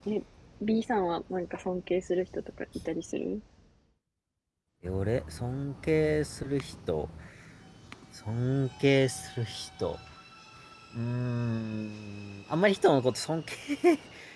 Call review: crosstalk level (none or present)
none